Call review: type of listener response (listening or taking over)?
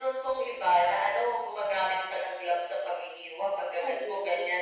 listening